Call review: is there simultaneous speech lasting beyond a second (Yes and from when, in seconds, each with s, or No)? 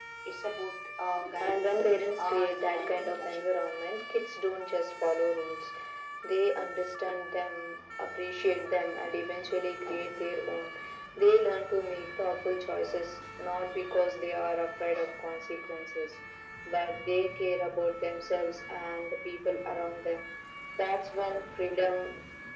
Yes, from 1.2 s